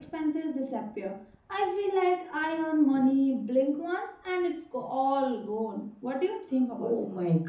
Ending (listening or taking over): taking over